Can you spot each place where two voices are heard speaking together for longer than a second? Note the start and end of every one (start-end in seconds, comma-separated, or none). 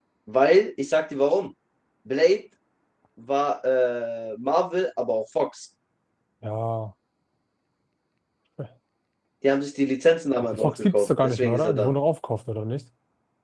10.4-11.9